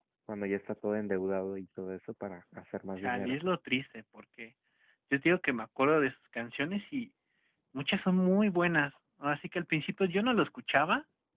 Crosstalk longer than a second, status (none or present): none